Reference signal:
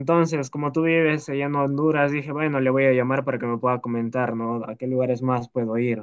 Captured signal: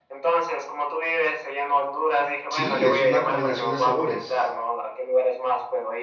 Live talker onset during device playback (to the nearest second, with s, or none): 2 s